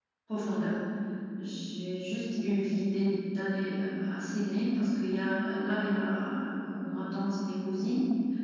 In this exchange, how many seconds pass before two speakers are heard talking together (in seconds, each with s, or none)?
none